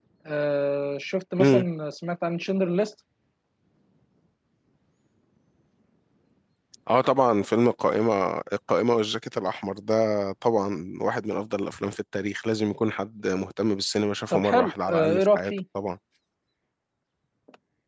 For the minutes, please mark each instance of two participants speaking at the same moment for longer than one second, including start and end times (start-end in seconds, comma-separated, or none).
14.3-15.5